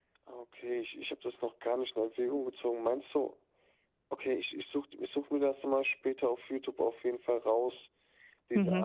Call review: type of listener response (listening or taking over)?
taking over